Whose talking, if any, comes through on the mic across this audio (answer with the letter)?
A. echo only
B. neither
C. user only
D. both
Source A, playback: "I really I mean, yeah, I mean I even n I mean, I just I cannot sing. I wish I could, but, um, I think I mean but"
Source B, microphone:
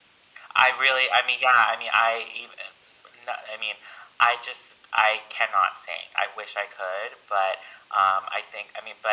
A